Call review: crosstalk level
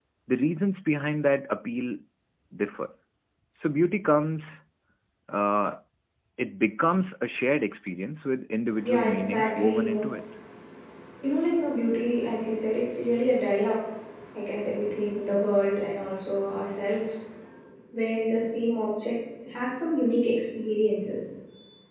present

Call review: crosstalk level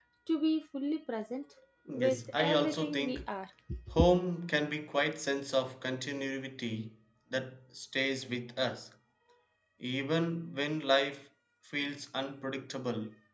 present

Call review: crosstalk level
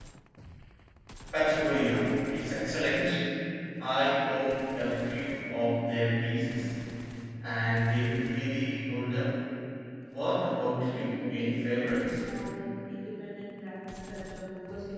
present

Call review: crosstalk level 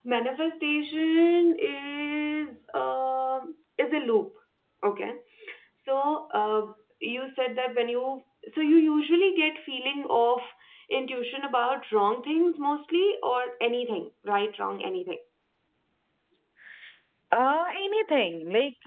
none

